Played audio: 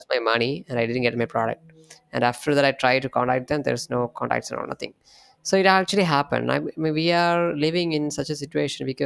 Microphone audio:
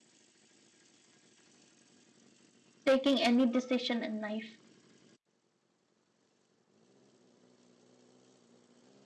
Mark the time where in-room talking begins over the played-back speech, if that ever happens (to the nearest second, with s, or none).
3 s